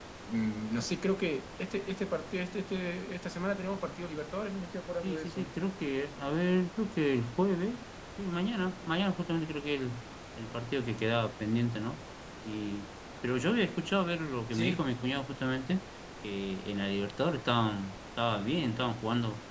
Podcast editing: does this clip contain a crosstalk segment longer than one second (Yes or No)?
No